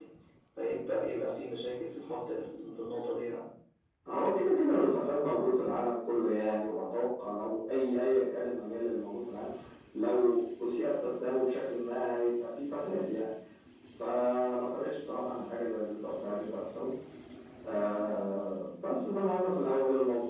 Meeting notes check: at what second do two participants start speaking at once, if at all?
none

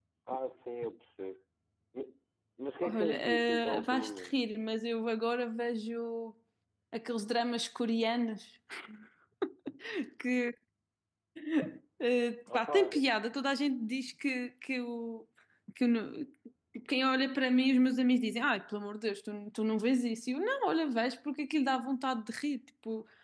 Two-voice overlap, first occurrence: 2.8 s

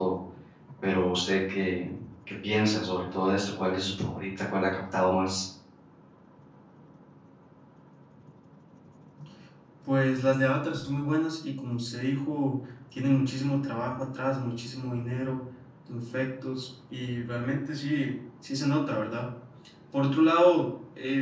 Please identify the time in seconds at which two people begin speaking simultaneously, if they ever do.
none

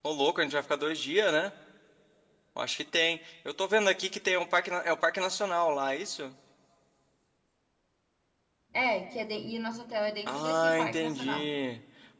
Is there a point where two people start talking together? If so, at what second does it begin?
10.3 s

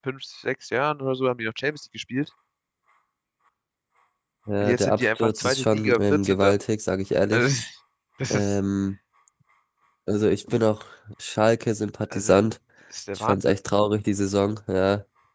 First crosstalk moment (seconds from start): 4.6 s

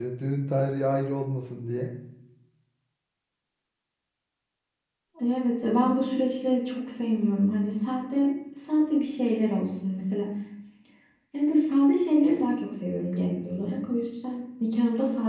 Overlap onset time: none

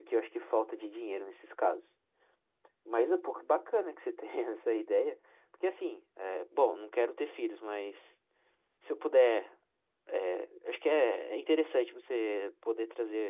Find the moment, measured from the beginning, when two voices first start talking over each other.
none

